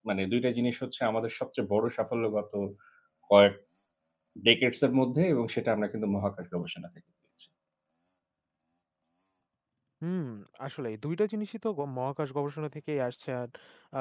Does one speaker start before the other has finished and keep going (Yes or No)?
No